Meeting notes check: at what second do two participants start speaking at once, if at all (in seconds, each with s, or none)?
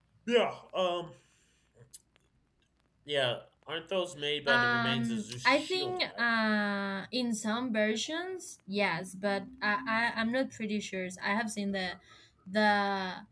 4.5 s